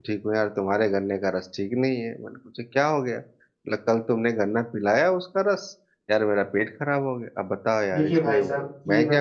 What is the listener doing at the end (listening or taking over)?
taking over